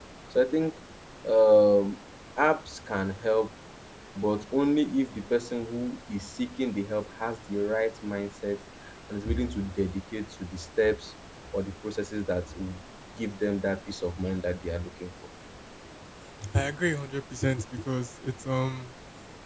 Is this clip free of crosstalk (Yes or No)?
Yes